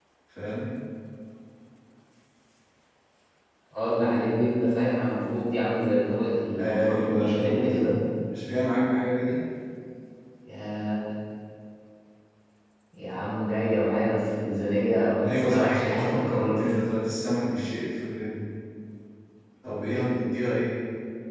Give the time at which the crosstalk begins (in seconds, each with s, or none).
6.6 s